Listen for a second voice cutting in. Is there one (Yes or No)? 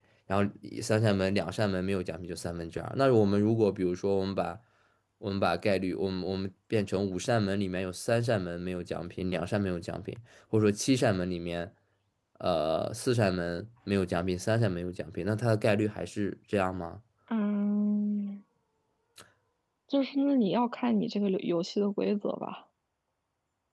No